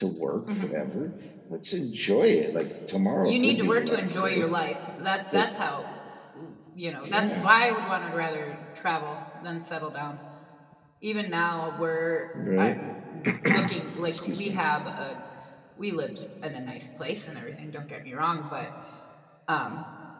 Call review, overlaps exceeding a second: present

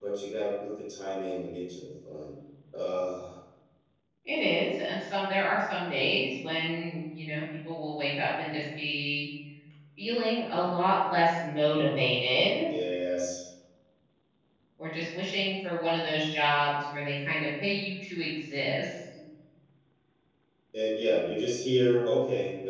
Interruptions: none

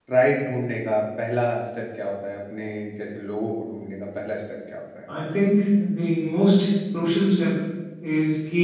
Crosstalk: none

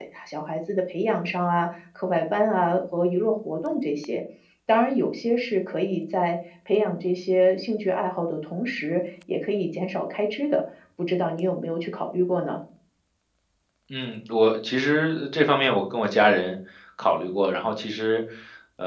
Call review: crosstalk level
none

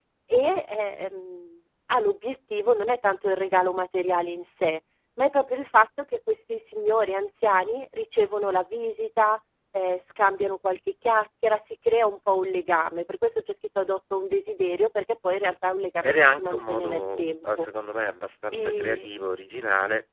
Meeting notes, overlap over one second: present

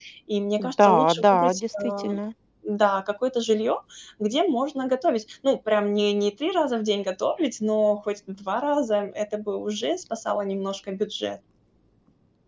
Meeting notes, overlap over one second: present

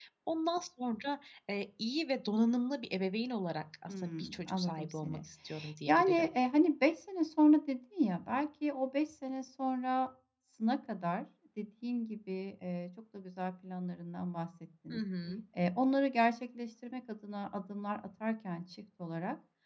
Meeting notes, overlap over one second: present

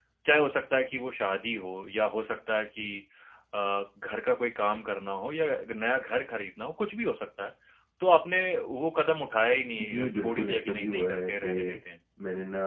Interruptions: present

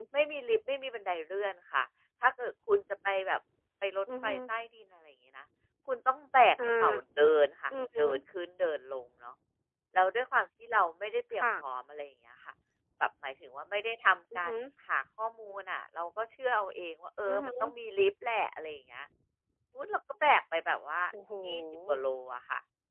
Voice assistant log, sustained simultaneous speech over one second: none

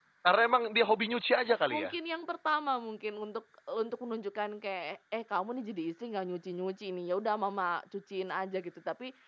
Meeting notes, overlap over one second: none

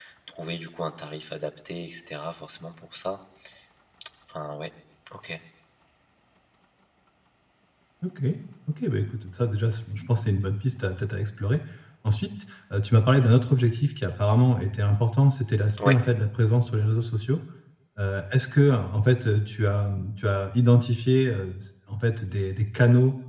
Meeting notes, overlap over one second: none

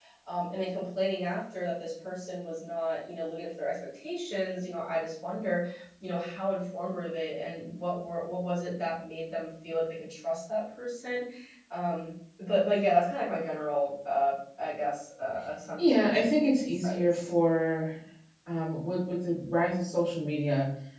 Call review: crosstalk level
present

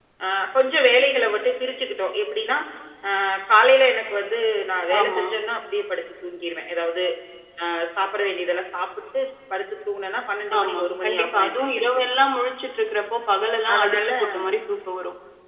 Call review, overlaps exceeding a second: present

